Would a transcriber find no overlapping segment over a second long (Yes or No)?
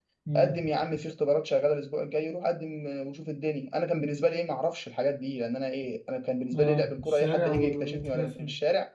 No